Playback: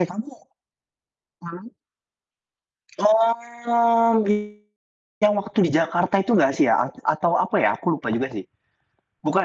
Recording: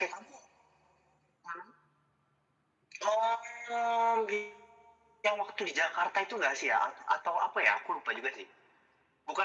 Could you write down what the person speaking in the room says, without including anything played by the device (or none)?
none